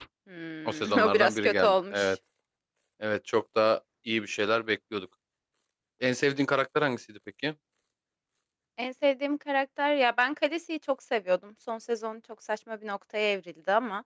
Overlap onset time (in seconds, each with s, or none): 0.6 s